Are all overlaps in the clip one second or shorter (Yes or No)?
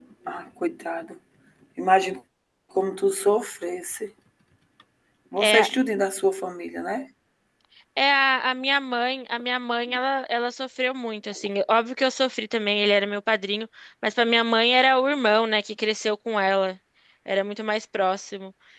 Yes